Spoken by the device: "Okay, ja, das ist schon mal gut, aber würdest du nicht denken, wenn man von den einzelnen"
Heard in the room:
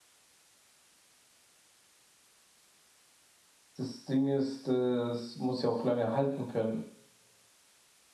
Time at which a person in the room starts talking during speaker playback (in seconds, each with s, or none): 3.8 s